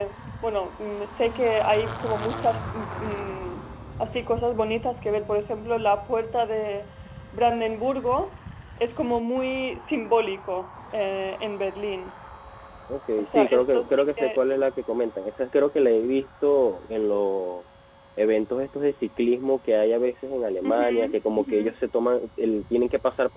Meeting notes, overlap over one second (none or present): present